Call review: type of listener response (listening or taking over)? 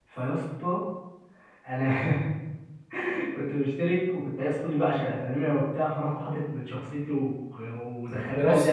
listening